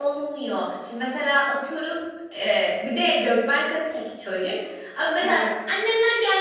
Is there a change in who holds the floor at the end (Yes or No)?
No